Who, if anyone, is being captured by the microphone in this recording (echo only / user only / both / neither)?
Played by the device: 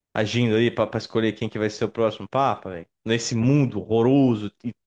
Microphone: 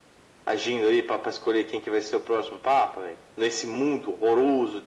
echo only